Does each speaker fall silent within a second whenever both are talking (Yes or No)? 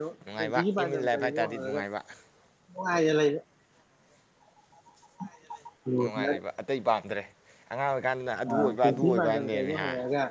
No